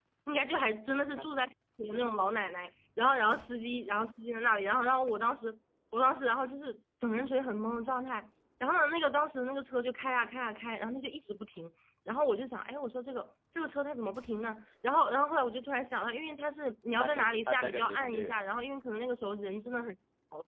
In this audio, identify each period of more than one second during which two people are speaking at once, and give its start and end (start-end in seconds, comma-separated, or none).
17.0-18.4